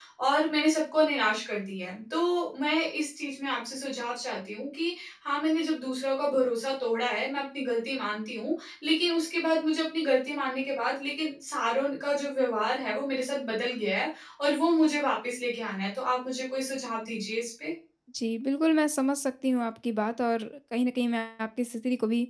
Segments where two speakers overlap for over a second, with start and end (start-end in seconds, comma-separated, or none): none